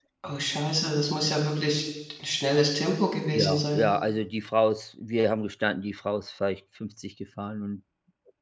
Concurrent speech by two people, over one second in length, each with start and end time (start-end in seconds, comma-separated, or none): none